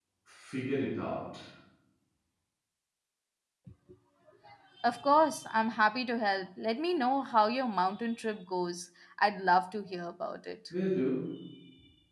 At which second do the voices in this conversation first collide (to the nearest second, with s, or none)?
none